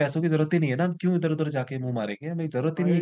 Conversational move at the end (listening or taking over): taking over